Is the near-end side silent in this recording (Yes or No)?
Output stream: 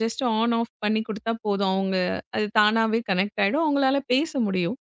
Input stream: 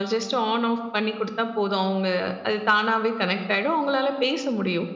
Yes